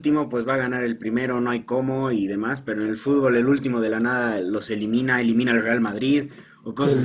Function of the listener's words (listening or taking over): taking over